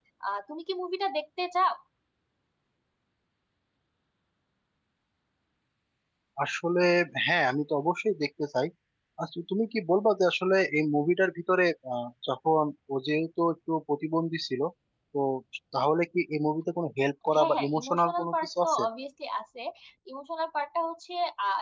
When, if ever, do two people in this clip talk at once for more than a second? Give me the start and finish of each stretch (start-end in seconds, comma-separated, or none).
17.3-18.8